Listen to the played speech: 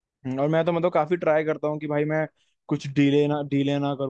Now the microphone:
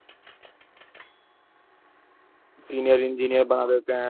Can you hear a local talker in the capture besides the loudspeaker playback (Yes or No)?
Yes